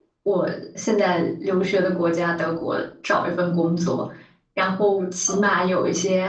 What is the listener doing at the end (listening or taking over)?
listening